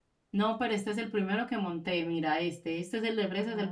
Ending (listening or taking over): taking over